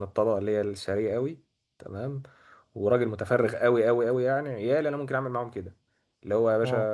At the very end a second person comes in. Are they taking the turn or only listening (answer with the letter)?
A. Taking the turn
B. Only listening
B